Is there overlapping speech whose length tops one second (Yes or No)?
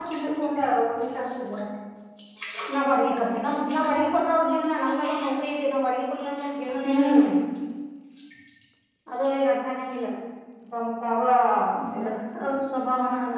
No